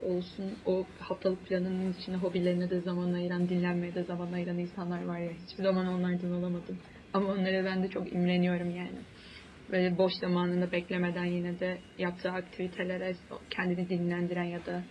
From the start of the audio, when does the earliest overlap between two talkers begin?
none

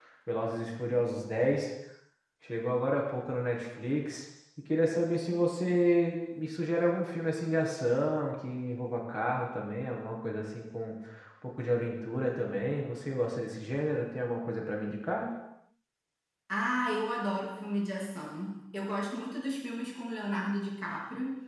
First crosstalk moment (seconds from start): none

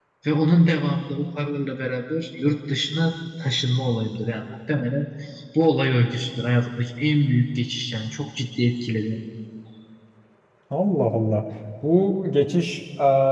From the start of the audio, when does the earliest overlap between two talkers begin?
none

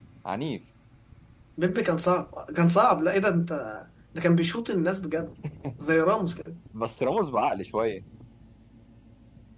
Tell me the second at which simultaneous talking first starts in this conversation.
none

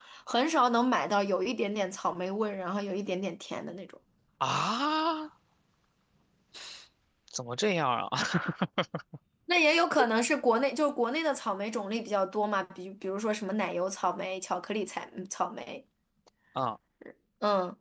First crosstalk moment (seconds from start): none

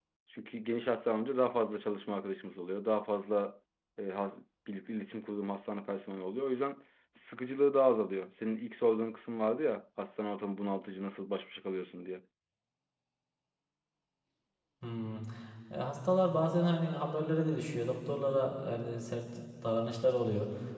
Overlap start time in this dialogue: none

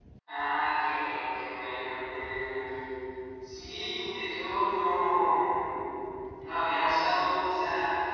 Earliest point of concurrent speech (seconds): none

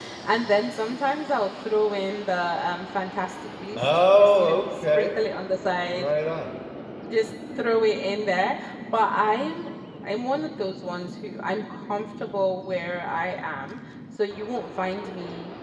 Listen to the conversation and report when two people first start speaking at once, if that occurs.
4 s

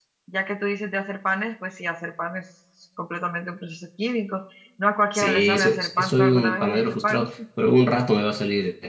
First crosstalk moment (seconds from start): 5 s

